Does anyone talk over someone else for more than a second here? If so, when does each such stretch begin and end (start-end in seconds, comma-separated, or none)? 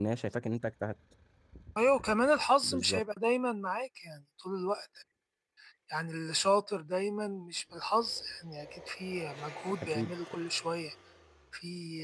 none